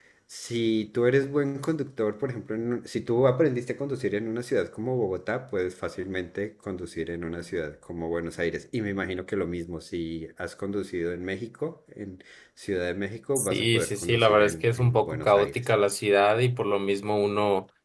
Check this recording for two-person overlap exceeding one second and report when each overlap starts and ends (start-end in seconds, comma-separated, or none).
13.4-15.6